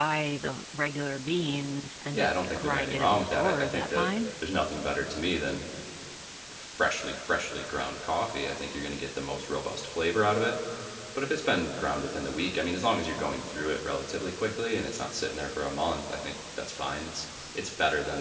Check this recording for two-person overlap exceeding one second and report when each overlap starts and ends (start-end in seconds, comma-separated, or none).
2.1-4.1